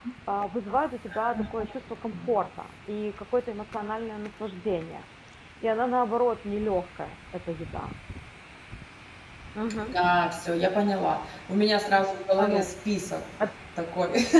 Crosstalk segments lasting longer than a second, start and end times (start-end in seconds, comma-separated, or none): none